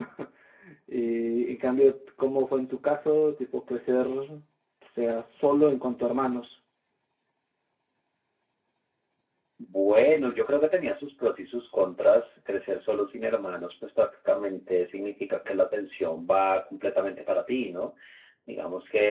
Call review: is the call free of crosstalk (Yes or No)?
Yes